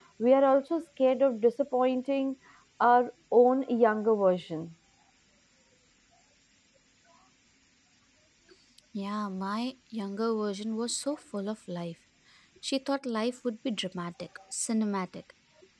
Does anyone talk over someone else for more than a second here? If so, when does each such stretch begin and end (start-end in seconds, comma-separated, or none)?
none